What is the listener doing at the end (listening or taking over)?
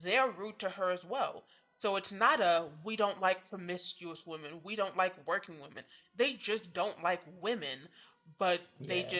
listening